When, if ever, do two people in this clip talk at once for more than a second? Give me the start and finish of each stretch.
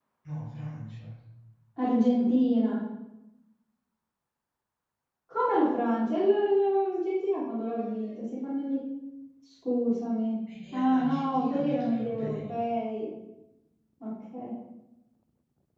10.7-12.5

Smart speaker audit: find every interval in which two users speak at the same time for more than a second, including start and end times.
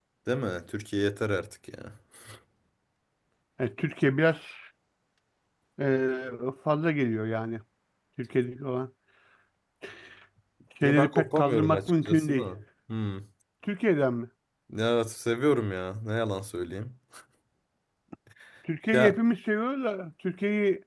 10.8-12.5

